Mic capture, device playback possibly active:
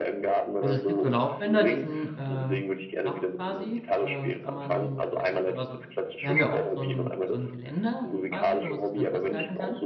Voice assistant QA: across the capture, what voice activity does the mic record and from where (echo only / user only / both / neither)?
both